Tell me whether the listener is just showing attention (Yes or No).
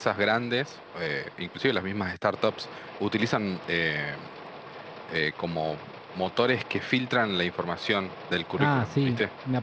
No